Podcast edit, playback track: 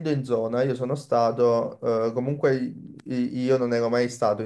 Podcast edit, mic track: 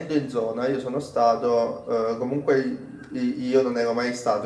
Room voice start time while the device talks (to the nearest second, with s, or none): none